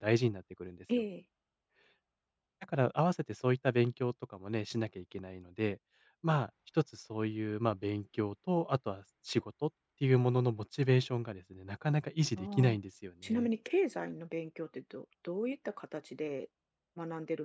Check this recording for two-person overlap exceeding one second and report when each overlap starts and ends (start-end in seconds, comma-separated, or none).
none